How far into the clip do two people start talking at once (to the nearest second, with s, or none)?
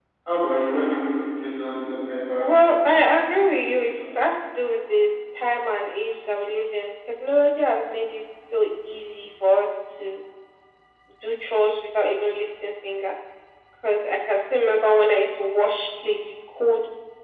2 s